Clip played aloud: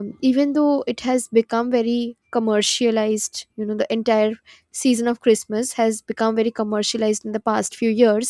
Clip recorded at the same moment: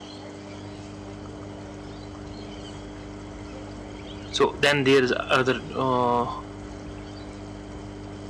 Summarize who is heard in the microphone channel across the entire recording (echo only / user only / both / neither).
user only